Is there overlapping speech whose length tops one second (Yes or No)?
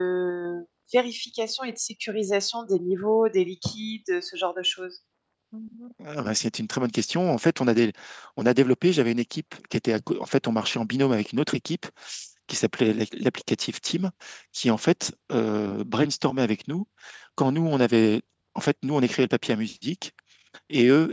No